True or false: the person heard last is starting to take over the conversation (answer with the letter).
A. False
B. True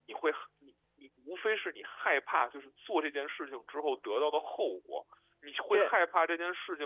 A